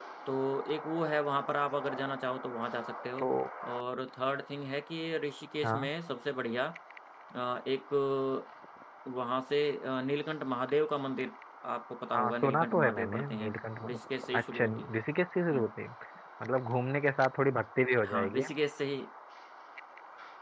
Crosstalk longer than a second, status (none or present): present